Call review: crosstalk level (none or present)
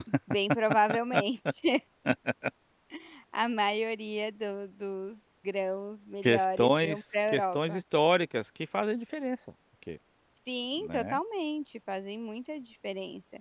present